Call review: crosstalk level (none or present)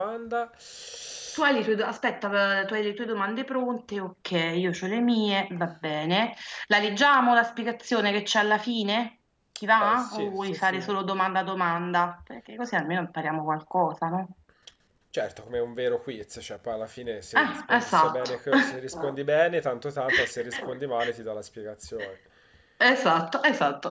present